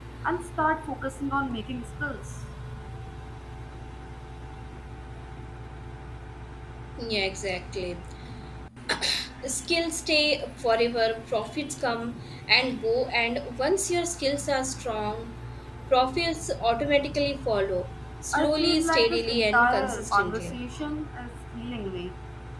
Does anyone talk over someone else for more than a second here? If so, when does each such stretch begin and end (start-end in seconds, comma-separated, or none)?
18.3-20.6